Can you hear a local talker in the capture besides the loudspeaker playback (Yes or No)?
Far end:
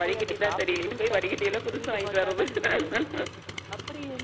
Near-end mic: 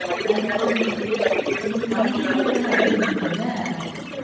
Yes